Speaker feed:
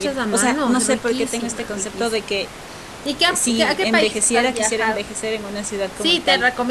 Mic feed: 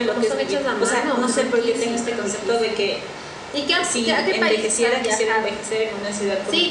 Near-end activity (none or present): none